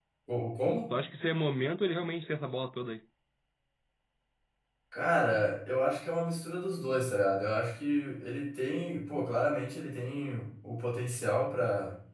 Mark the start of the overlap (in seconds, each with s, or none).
none